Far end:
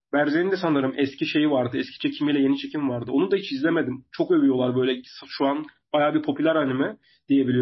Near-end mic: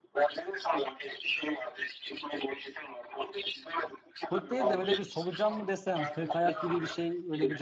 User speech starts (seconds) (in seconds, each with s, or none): 4.2 s